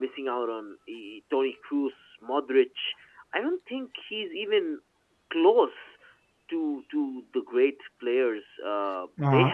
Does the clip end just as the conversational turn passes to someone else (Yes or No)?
Yes